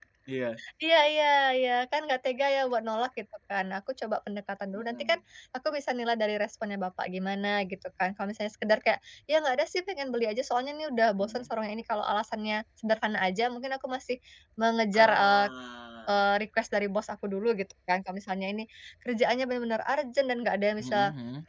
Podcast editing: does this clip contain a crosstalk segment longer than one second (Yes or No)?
No